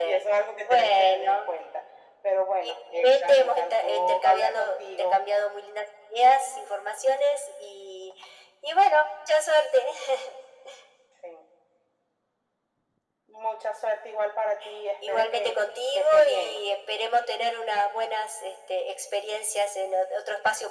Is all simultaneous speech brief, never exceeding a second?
No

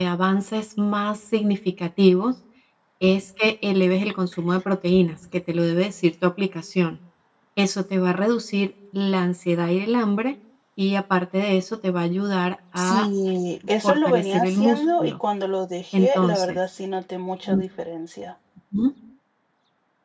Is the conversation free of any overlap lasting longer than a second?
No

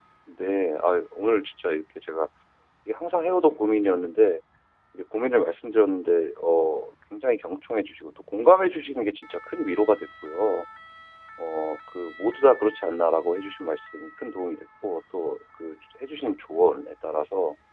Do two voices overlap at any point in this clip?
No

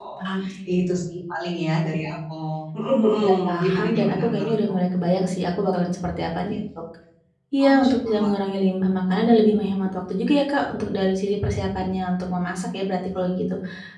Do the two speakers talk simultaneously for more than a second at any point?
Yes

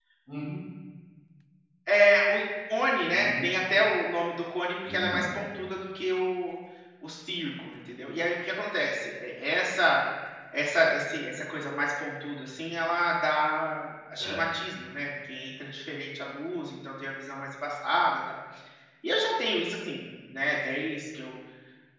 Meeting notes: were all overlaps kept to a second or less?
Yes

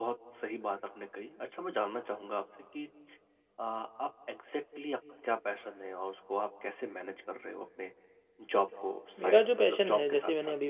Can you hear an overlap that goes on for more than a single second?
Yes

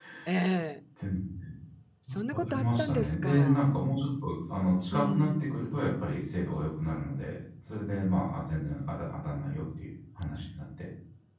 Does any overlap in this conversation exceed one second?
Yes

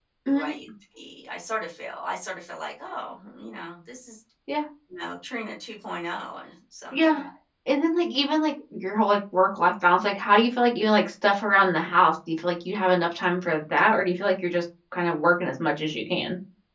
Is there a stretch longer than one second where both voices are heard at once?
No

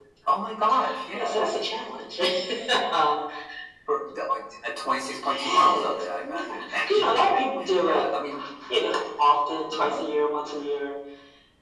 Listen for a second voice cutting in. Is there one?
Yes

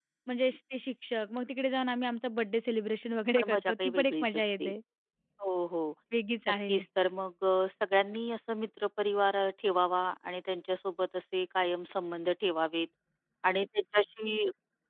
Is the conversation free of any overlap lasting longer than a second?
No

